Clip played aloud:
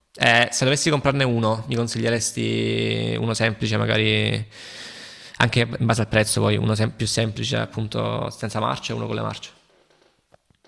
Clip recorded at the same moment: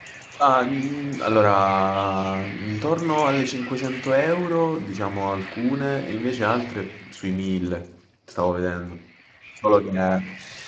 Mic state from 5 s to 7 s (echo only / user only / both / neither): user only